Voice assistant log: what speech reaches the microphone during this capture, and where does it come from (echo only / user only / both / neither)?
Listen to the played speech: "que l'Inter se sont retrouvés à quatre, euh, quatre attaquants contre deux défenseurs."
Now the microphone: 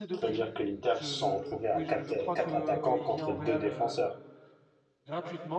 both